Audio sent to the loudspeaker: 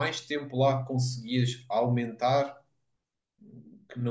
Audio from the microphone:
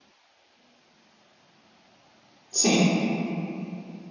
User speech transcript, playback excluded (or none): sim,